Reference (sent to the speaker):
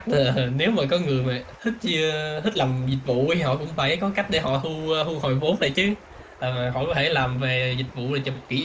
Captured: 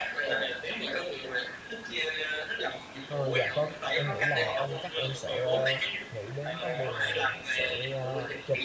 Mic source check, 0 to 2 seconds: echo only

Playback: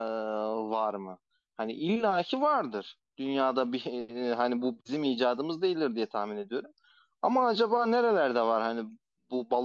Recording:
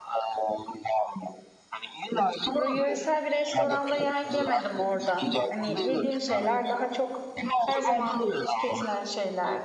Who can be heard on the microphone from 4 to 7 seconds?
both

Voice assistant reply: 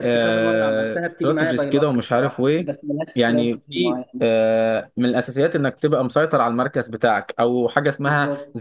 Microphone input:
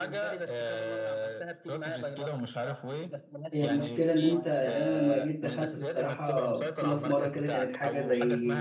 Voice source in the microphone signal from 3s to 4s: both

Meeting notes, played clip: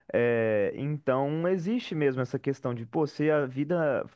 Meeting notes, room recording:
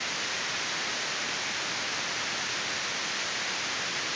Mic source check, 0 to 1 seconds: neither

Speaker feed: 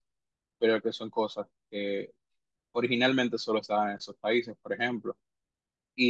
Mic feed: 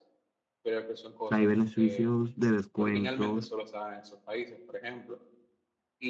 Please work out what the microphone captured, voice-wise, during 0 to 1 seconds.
echo only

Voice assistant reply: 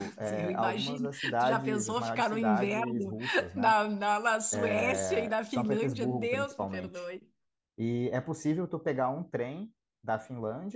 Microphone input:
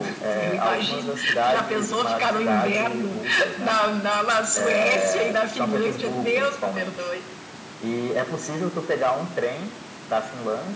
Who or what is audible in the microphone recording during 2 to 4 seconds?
echo only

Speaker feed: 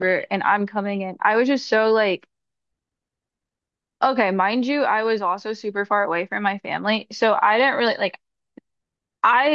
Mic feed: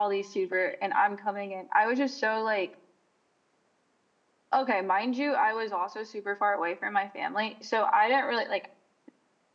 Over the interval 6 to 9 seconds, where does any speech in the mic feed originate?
echo only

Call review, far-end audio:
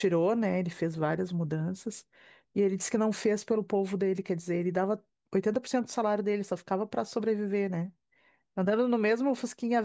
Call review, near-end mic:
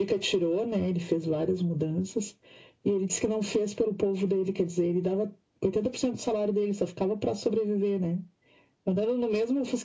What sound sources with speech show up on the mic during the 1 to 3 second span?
echo only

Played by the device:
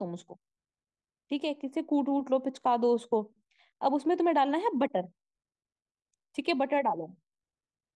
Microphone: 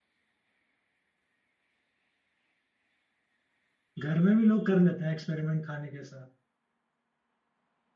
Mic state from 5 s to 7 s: user only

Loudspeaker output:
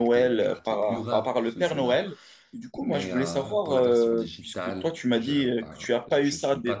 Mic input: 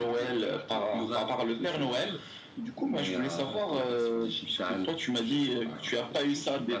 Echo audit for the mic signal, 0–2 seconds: echo only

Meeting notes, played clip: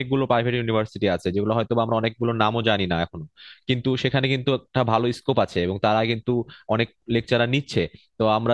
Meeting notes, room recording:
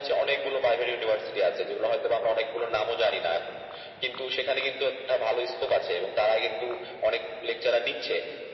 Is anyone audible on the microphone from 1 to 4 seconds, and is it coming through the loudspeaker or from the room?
echo only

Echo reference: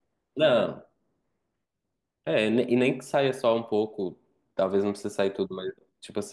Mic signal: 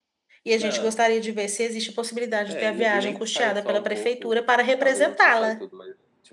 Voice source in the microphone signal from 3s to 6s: both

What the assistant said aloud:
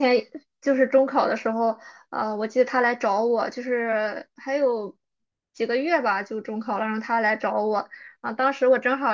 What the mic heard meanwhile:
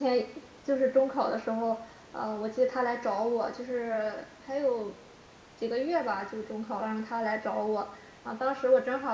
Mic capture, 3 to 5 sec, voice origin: echo only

